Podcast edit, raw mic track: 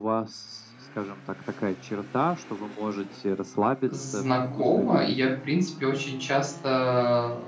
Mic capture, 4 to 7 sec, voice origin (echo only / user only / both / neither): both